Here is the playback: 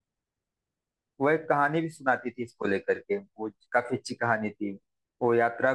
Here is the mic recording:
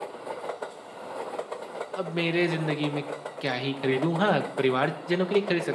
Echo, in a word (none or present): none